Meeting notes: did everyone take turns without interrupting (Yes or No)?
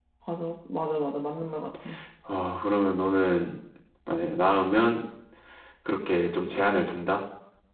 Yes